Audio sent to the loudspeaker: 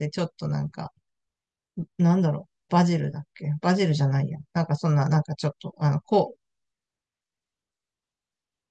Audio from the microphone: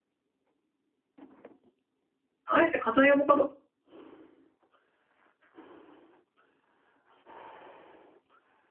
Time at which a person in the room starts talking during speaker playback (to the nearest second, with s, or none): 2 s